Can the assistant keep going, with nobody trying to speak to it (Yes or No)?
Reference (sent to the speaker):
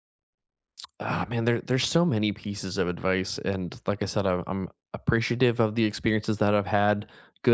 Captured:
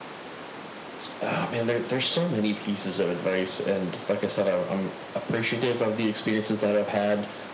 Yes